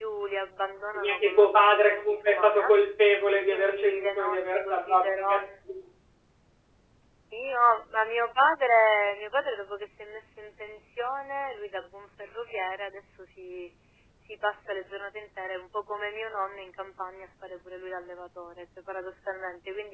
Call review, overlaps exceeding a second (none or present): present